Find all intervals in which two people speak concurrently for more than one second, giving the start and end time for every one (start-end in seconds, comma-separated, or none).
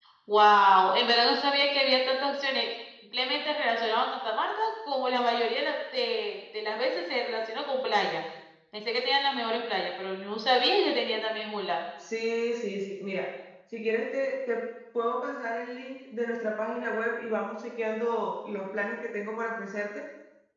none